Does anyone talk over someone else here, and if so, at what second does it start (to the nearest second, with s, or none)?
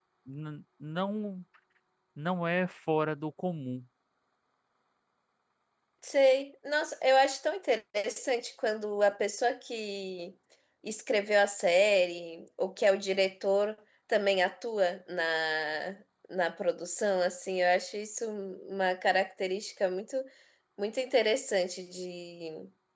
none